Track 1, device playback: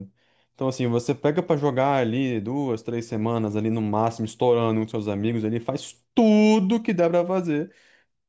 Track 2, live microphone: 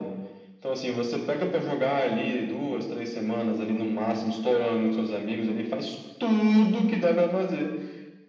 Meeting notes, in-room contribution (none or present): none